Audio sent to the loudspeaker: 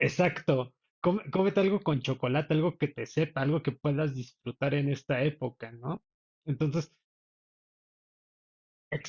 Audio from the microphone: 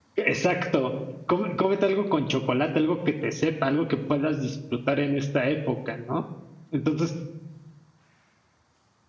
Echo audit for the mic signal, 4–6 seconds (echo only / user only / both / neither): echo only